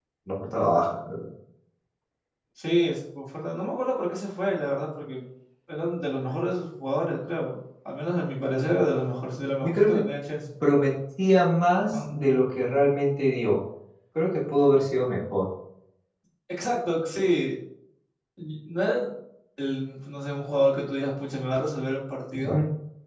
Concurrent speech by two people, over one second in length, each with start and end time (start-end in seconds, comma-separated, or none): none